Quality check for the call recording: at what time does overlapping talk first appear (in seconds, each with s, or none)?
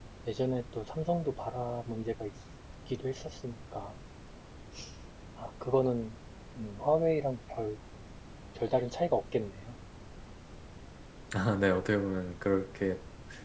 none